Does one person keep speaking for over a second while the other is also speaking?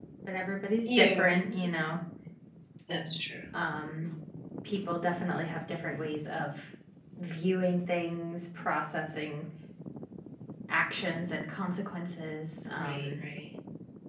No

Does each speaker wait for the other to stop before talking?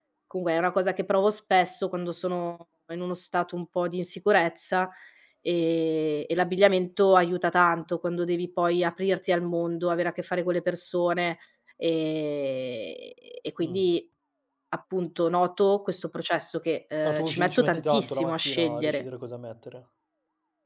No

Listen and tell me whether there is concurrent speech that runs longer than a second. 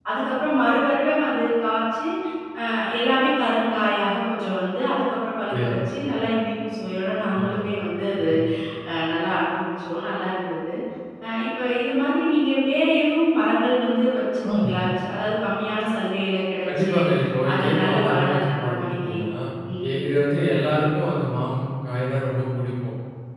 Yes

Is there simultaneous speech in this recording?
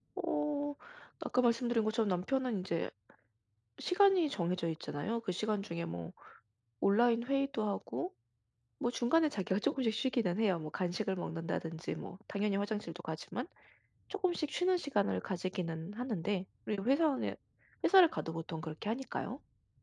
No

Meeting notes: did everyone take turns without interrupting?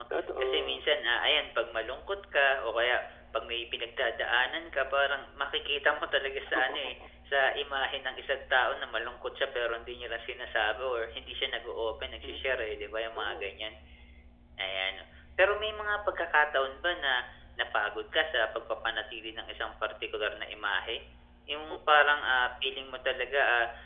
No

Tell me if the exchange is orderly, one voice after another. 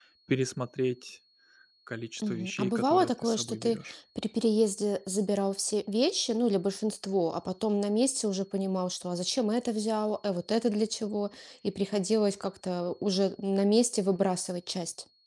No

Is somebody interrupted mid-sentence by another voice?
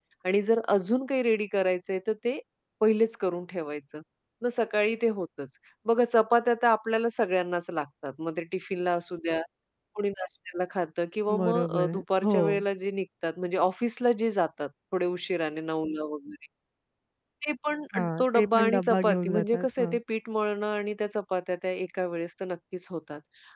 Yes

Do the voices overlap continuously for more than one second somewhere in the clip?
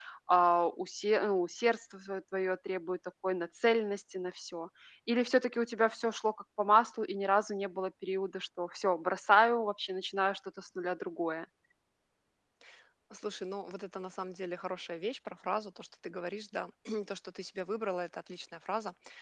No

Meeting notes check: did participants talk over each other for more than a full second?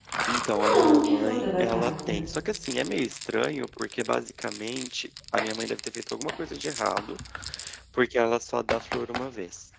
Yes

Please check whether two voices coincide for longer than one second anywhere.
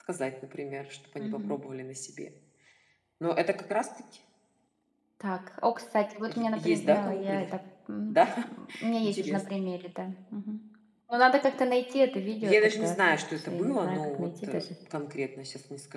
Yes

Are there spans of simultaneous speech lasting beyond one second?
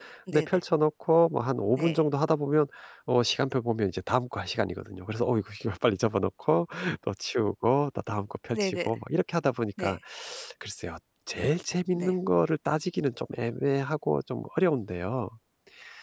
No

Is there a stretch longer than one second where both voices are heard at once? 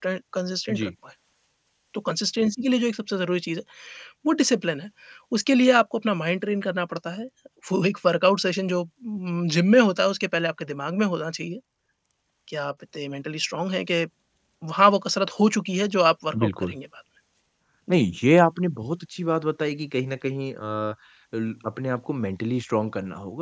No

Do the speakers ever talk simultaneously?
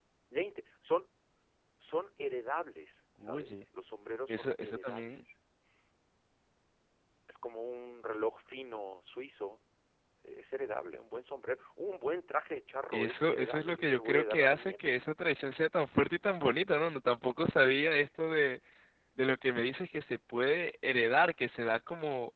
Yes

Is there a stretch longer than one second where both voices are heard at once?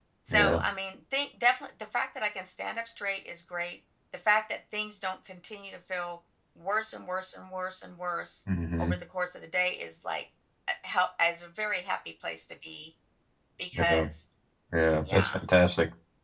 No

